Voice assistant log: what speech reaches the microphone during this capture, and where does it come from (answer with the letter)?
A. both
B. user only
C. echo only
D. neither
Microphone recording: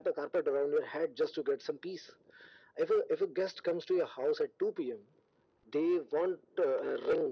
C